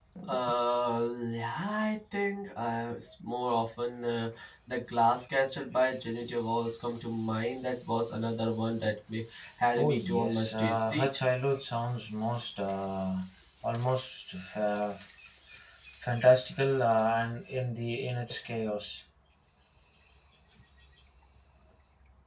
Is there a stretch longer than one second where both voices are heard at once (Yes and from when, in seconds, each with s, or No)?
Yes, from 9.8 s